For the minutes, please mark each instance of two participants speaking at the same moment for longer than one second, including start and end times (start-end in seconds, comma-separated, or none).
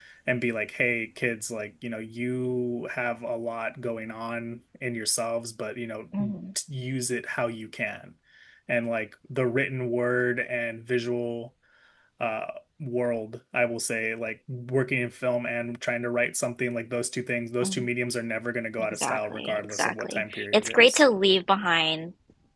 18.8-21.0